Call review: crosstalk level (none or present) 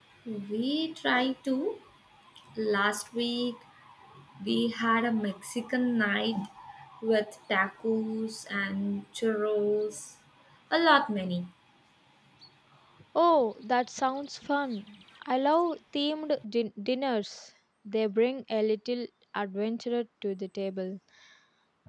none